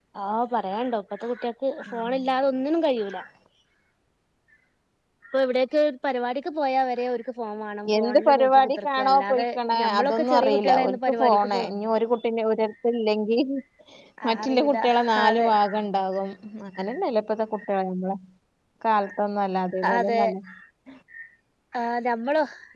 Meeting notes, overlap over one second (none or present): present